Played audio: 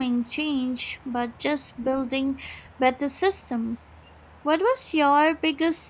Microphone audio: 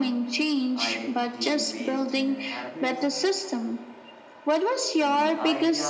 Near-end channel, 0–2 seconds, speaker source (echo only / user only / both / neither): both